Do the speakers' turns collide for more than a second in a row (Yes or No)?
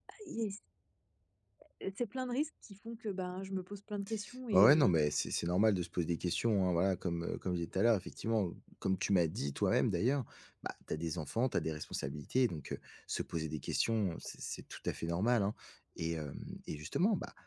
No